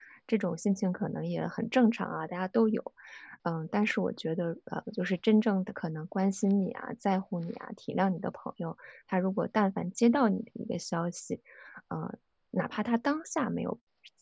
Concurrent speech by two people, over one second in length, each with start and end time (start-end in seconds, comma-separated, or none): none